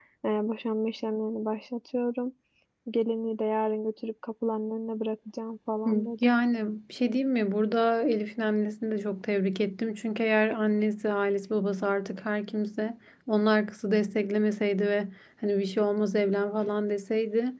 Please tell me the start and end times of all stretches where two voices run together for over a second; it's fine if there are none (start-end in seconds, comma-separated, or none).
none